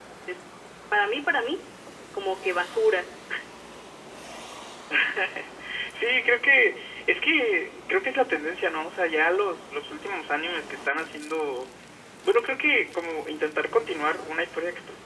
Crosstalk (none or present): none